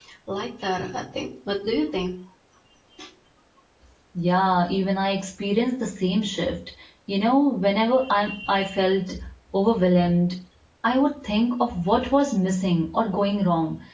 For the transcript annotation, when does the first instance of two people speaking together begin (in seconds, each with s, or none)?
none